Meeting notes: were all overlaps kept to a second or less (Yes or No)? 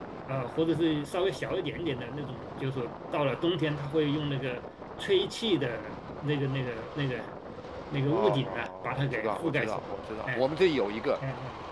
No